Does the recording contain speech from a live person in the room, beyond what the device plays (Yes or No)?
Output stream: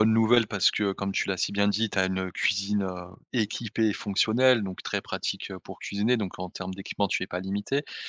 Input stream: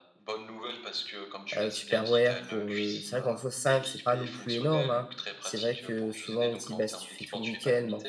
Yes